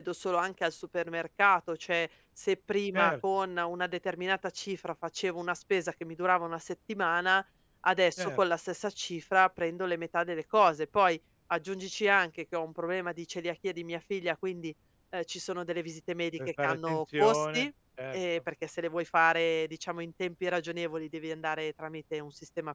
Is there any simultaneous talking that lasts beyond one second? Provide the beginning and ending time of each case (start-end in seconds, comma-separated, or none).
16.4-17.7